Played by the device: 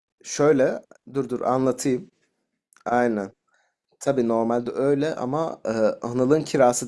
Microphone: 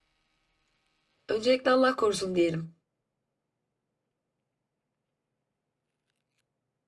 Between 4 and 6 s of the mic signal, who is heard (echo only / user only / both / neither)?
neither